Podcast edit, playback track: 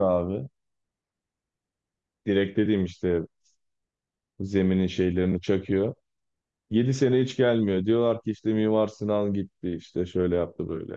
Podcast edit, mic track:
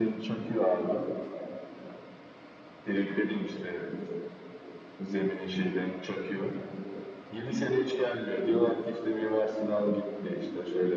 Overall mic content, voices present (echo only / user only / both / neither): echo only